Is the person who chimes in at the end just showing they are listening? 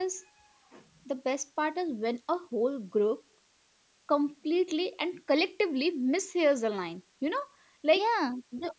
Yes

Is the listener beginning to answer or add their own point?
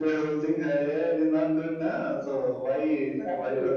No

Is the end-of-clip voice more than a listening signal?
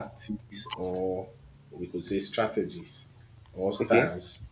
No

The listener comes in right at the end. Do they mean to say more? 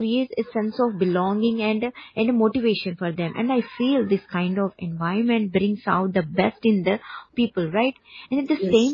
No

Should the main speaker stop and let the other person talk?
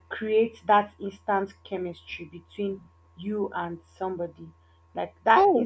No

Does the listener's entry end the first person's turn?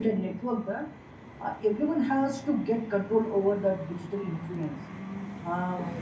No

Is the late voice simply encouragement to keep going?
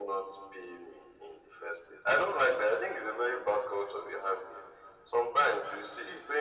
Yes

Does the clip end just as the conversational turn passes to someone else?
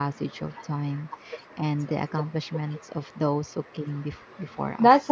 Yes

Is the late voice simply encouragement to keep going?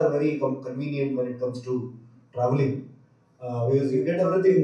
Yes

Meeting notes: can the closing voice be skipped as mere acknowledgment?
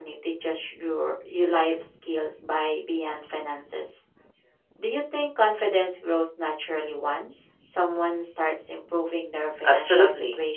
No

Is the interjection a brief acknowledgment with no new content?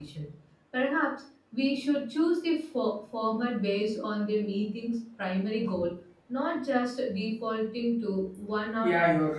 No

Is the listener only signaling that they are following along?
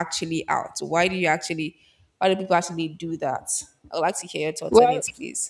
No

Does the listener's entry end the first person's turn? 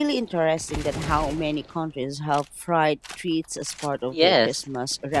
Yes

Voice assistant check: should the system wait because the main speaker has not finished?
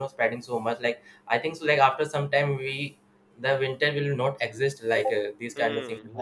No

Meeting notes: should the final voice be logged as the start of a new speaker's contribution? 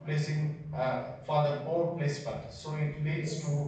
No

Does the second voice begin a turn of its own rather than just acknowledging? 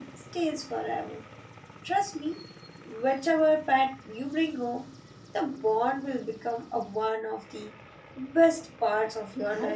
Yes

